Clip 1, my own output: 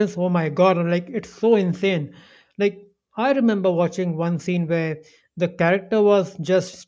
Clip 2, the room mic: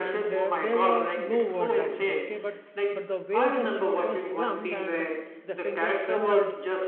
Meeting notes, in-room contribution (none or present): present